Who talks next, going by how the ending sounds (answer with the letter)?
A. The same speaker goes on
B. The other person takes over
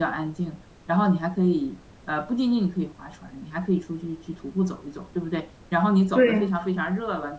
A